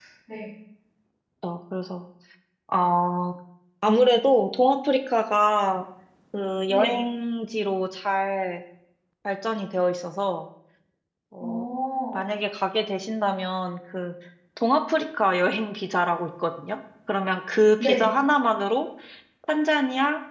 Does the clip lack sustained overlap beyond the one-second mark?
Yes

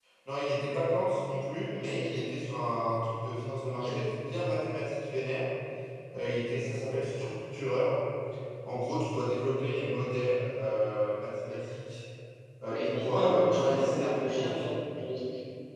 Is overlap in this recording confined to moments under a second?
No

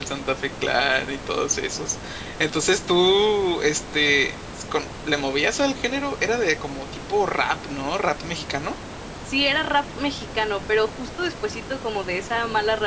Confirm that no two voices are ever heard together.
Yes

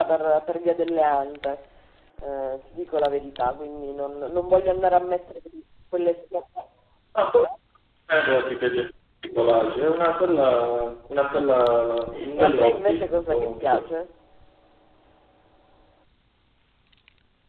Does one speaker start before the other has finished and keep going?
Yes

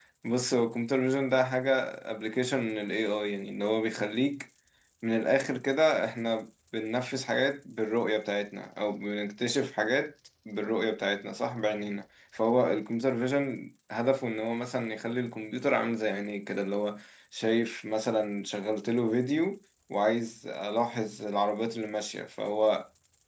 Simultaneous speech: No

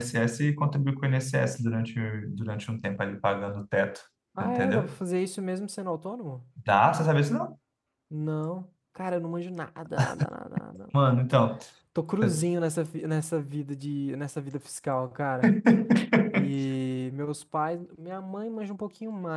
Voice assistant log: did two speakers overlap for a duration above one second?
No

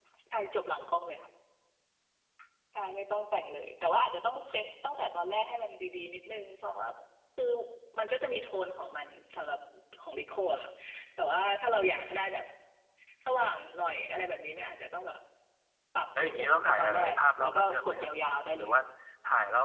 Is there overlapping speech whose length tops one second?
Yes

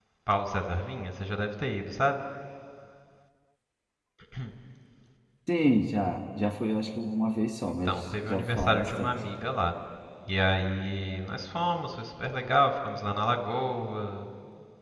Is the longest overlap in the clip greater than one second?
Yes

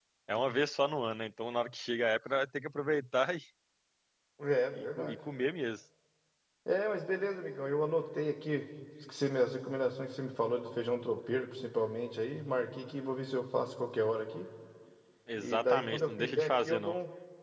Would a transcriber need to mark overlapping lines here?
Yes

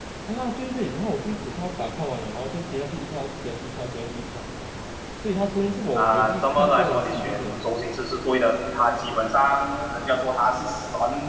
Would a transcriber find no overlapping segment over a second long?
No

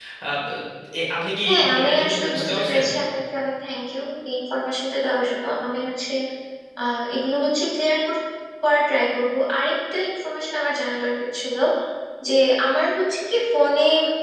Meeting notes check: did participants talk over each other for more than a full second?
Yes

